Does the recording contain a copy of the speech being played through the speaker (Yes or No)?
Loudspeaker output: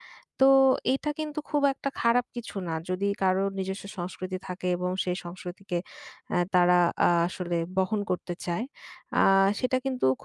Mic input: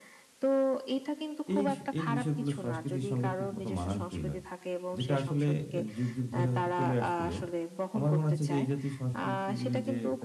Yes